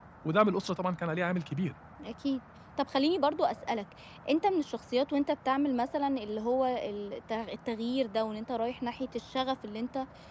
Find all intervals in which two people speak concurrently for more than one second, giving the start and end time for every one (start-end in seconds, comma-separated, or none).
none